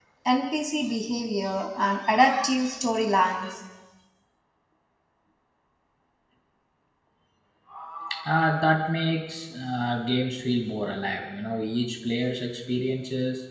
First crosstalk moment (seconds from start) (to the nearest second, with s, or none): none